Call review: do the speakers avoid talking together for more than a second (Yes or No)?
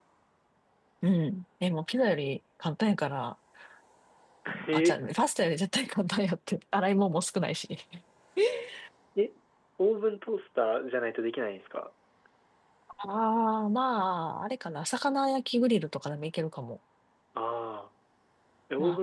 Yes